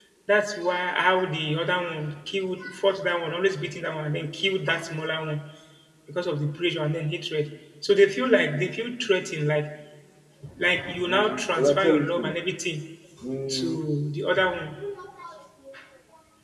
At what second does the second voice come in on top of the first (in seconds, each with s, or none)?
11.1 s